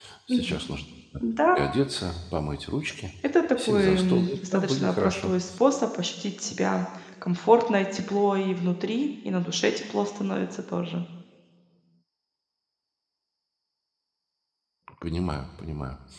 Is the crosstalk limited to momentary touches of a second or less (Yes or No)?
No